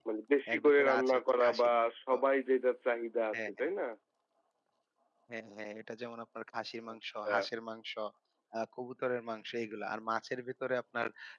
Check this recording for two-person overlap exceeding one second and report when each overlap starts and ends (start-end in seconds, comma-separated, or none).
0.5-2.2